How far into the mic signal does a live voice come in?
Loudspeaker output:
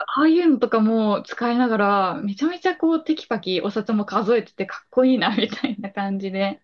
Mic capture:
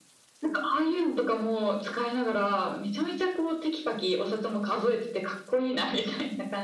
none

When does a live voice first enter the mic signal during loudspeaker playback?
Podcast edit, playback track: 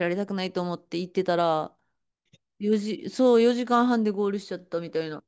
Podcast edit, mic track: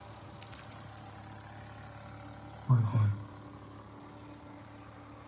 2.6 s

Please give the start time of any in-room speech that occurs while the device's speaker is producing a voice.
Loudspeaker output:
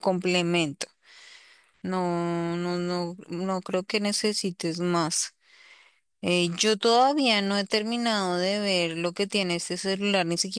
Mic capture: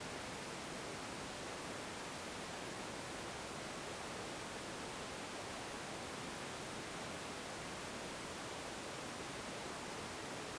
none

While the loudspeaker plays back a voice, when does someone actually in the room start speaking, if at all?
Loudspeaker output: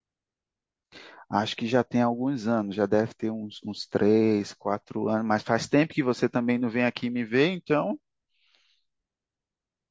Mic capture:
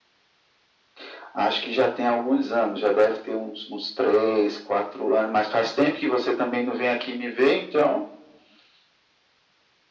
none

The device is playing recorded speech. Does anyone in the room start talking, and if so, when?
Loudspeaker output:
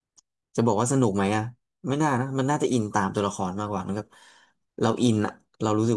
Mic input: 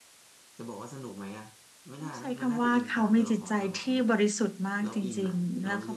2.0 s

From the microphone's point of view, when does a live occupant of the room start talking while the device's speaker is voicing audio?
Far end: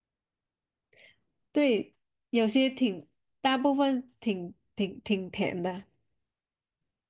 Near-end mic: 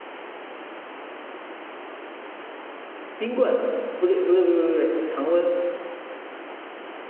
3.1 s

